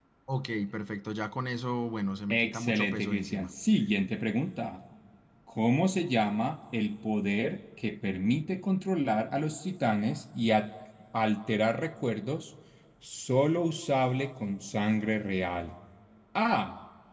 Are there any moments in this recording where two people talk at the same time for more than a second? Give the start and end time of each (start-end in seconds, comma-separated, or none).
2.3-3.5